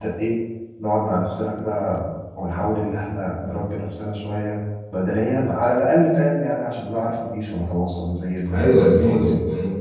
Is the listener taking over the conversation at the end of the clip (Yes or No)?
Yes